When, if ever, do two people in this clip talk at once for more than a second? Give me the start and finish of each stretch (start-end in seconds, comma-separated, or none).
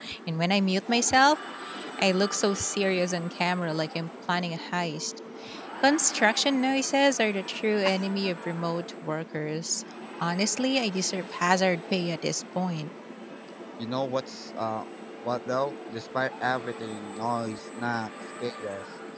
none